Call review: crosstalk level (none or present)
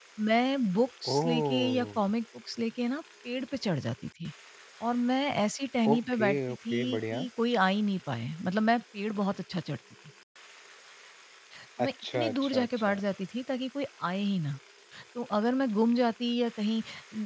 present